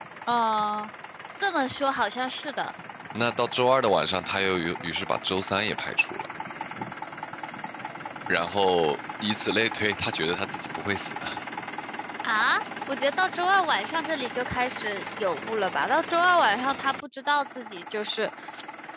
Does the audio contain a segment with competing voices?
No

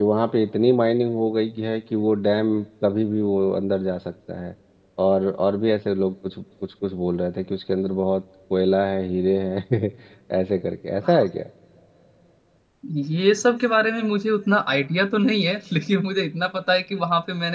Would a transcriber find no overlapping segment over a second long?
Yes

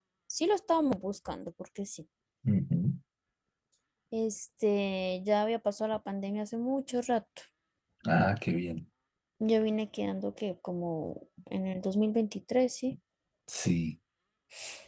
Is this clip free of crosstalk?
Yes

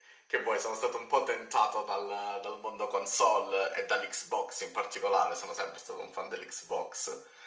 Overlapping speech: No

